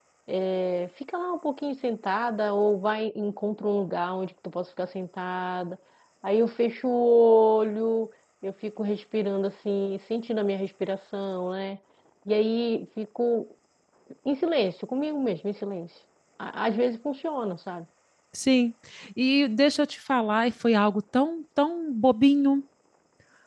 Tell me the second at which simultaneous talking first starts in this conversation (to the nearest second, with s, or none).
none